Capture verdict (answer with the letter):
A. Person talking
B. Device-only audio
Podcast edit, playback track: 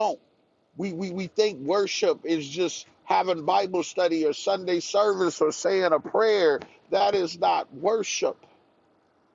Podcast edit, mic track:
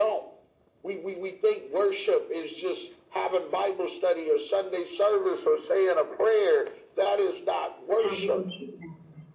A